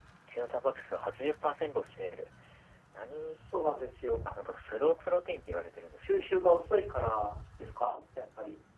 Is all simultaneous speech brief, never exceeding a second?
Yes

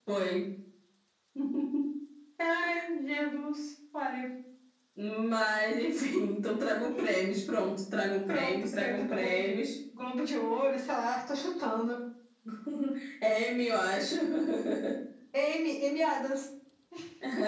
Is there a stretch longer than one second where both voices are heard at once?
Yes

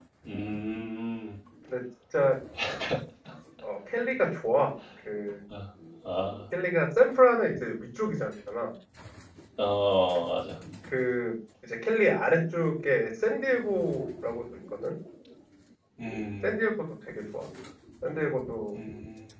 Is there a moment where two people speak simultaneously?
No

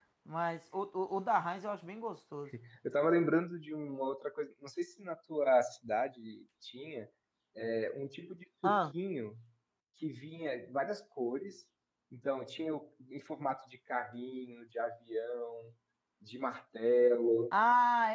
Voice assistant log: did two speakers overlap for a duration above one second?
No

